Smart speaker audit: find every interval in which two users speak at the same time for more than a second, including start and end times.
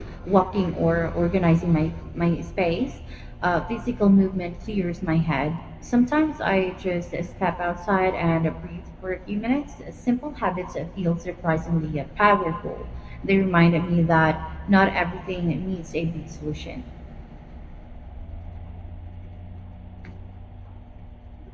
none

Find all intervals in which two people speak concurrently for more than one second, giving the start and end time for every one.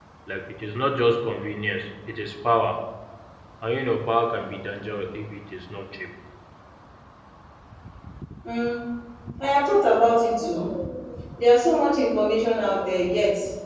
none

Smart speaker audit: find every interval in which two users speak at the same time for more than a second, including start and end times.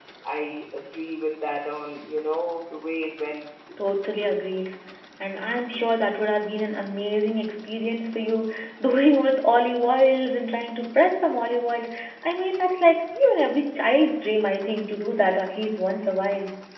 none

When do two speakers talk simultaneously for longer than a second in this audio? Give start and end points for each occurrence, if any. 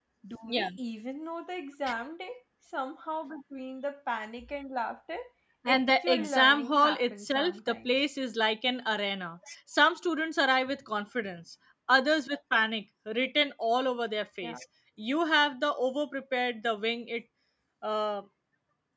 5.8-7.9

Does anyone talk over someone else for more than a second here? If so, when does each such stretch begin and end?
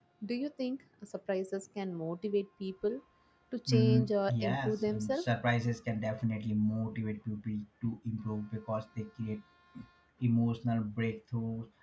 3.7-5.2

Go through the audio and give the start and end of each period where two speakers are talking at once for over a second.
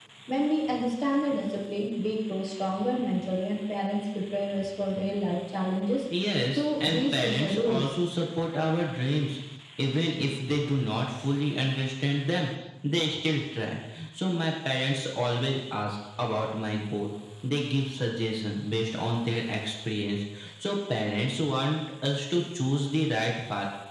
6.6-7.9

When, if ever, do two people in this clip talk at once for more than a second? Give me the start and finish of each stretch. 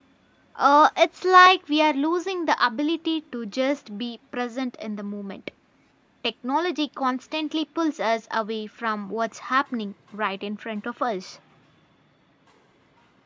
none

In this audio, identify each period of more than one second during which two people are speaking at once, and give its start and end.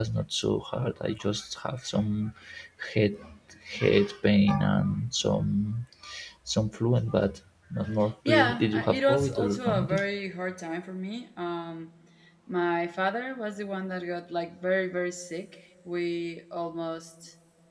8.2-10.0

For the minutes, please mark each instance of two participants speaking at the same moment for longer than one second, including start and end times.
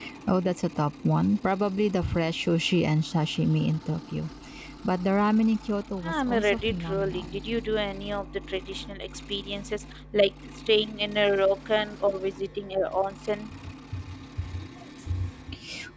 6.0-7.4

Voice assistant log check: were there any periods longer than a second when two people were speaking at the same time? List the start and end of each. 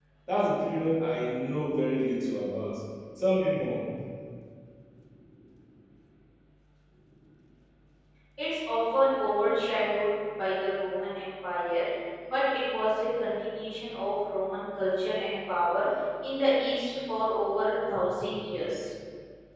none

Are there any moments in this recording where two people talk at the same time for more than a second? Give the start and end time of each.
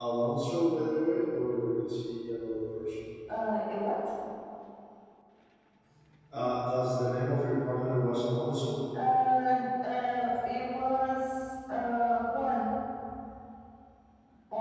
none

